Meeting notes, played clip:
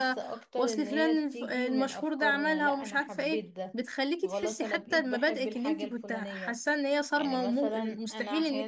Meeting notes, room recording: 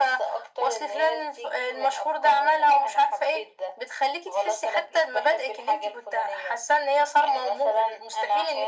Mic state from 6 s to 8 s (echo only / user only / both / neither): echo only